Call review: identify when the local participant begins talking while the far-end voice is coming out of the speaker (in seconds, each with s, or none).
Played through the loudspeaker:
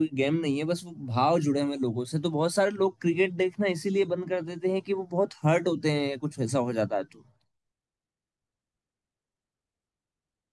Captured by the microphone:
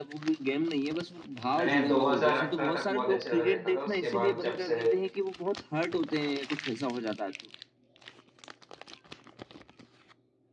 1.6 s